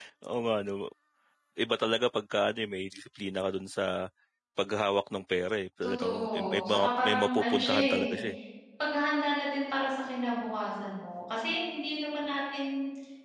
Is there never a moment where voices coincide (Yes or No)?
No